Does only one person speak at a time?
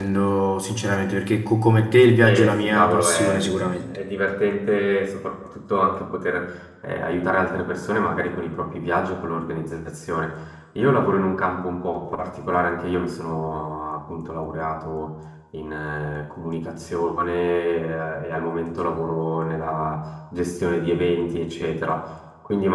No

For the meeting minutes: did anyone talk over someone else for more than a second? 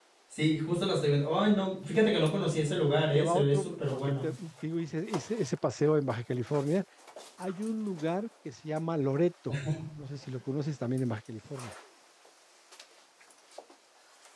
Yes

